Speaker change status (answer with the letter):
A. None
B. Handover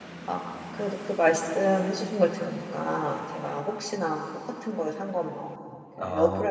A